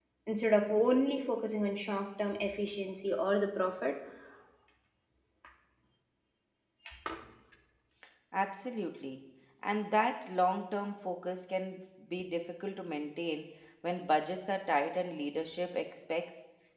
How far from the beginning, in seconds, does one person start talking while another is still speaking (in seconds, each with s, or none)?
none